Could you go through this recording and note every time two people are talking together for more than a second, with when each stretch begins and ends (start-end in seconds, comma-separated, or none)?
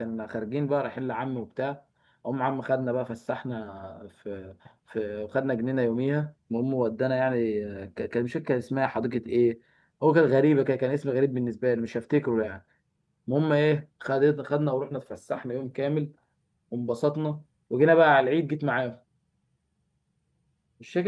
none